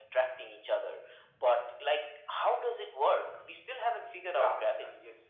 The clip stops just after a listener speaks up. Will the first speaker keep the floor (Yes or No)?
No